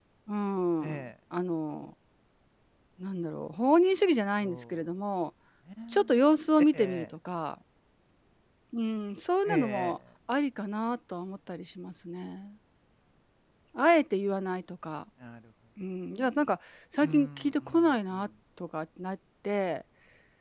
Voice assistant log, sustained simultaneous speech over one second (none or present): present